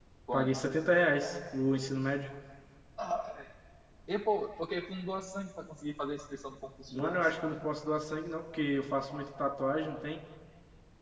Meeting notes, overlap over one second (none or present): none